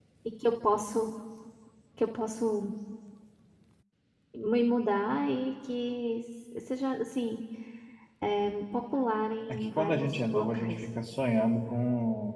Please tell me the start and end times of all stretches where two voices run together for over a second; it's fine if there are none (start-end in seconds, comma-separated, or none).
9.5-10.8